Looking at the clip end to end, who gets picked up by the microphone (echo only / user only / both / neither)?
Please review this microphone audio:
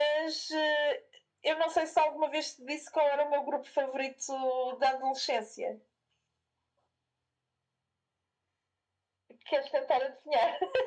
echo only